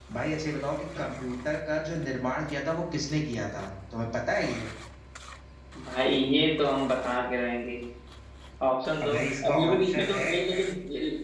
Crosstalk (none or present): present